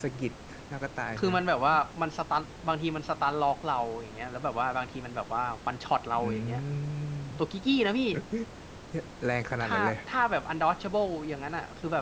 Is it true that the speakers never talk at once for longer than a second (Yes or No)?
Yes